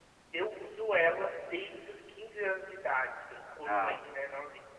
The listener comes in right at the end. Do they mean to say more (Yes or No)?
No